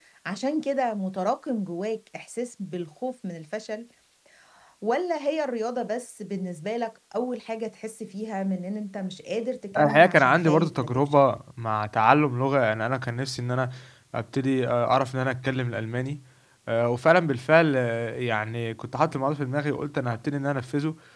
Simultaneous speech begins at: 9.8 s

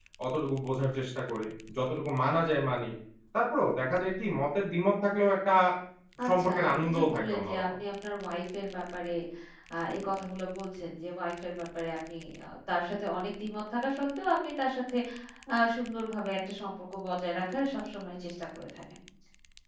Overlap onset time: 6.3 s

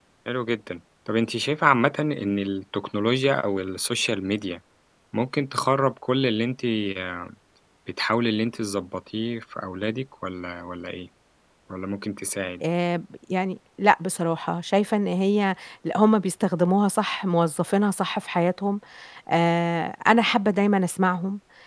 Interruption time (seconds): none

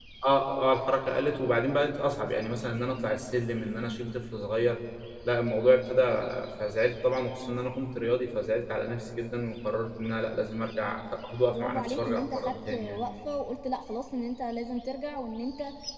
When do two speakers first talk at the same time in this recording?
11.5 s

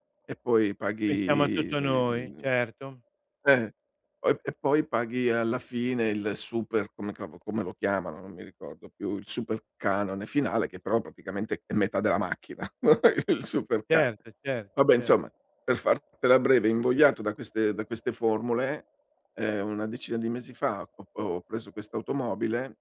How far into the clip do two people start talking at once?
1.1 s

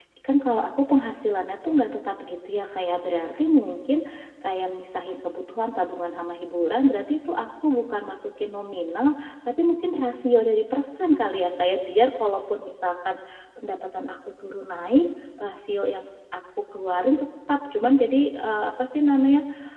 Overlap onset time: none

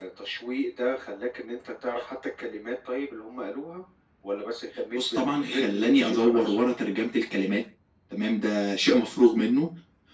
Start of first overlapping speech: 4.9 s

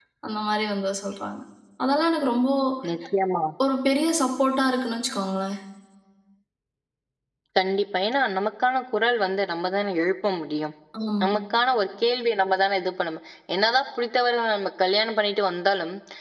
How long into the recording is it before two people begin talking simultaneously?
none

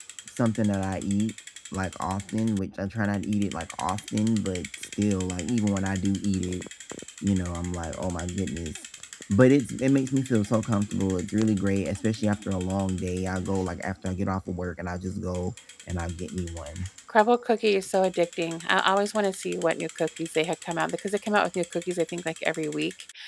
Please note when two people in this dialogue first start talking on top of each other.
none

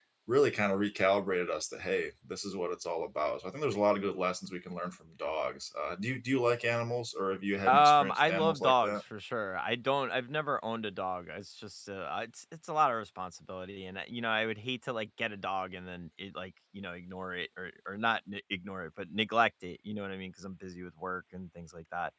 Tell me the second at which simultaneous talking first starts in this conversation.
7.7 s

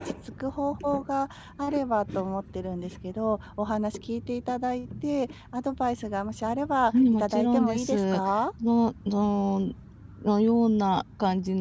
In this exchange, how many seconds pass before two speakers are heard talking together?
6.9 s

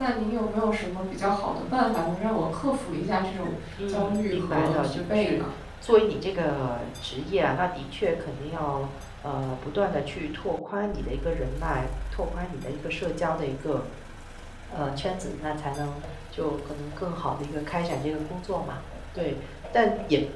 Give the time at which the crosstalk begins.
3.8 s

